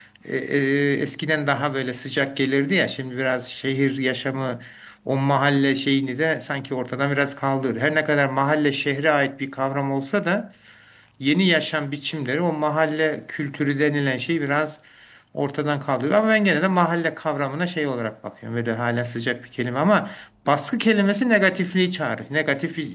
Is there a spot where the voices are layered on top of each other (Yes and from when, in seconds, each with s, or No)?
No